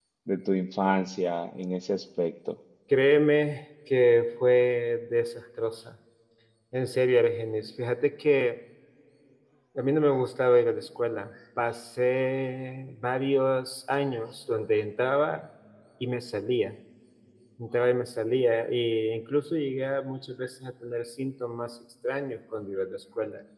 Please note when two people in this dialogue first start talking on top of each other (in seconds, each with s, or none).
none